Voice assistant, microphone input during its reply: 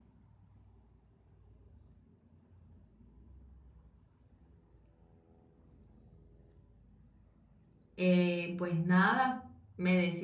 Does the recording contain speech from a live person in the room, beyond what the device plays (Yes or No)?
Yes